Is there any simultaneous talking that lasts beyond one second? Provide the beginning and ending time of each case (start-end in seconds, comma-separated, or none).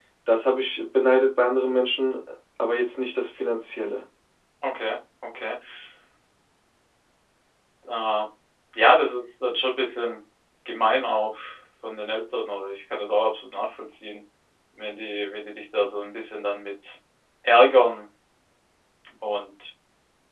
none